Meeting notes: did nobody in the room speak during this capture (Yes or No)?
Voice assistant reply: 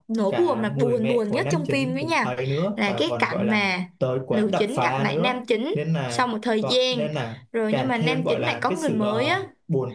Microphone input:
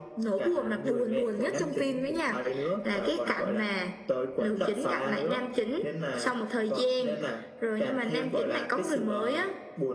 Yes